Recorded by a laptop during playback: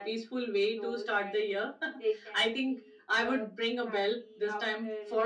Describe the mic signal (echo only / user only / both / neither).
echo only